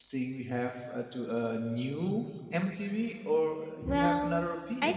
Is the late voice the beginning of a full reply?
Yes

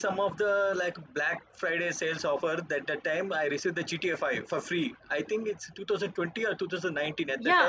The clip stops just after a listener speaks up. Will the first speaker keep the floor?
No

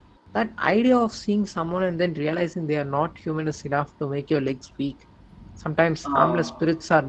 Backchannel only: Yes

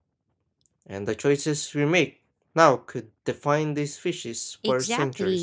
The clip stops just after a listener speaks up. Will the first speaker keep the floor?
No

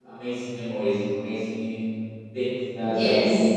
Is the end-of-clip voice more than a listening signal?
Yes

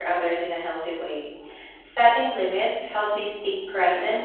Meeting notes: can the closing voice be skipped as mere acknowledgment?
No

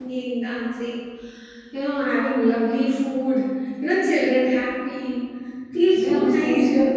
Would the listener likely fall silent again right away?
No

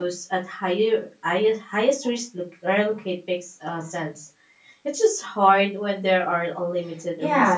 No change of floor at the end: No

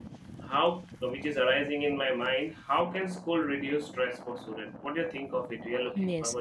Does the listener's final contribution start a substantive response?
Yes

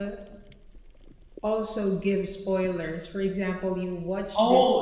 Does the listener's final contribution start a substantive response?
Yes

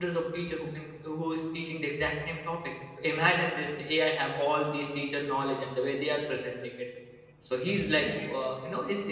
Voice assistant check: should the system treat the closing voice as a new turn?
No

